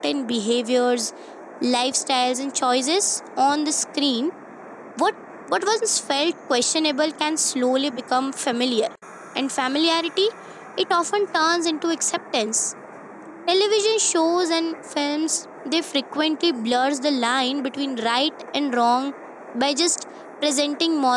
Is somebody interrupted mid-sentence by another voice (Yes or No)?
No